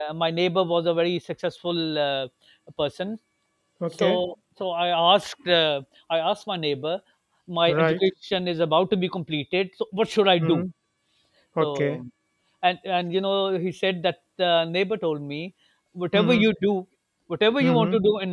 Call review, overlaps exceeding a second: none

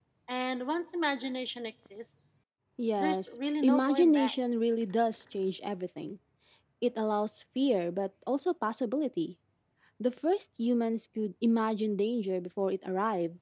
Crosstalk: present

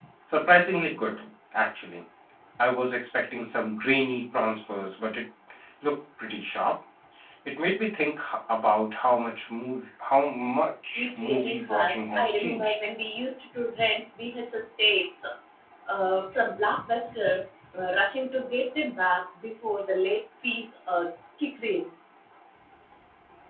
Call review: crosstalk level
present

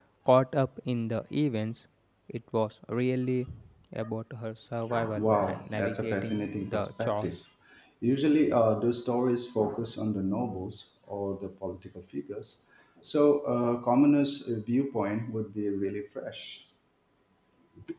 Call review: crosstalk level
present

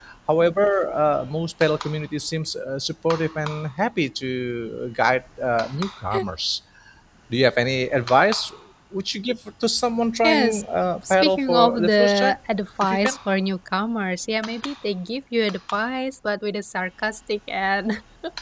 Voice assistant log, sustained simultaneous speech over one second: present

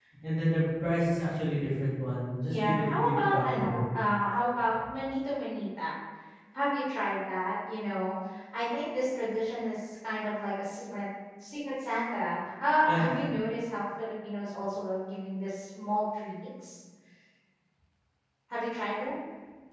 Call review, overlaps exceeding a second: present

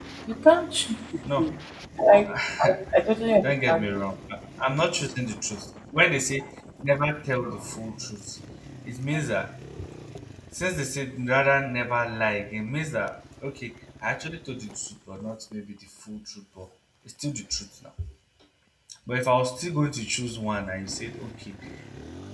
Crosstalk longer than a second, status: none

